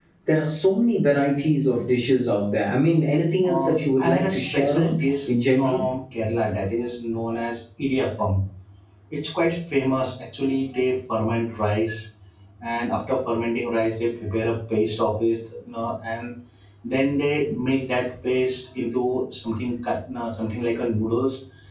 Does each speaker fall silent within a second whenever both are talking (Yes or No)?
No